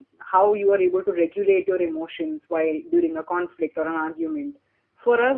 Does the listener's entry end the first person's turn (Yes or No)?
No